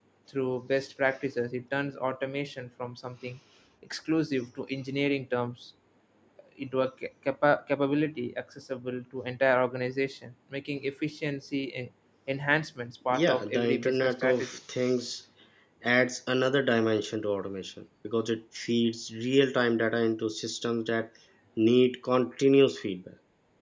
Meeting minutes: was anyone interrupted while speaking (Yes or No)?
Yes